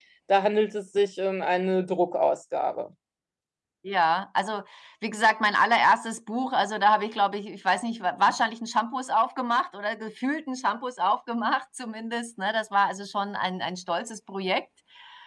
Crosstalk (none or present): none